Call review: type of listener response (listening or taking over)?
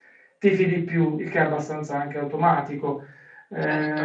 listening